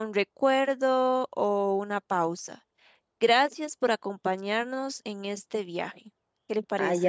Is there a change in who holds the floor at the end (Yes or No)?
Yes